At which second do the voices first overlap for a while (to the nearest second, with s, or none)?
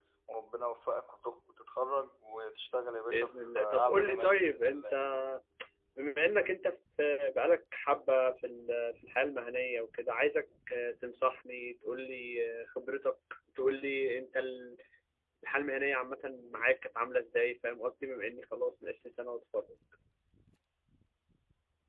3 s